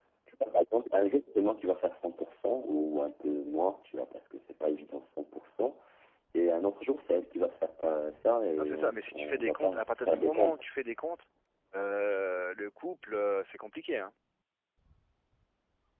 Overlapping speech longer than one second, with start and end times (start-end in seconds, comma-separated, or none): 8.6-10.6